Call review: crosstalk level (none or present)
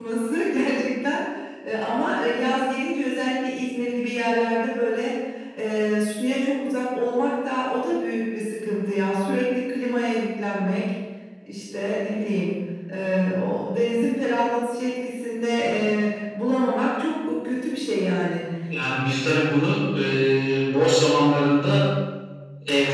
none